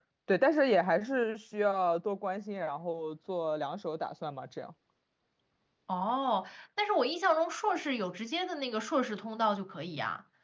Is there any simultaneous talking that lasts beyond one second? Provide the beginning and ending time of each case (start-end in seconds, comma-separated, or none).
none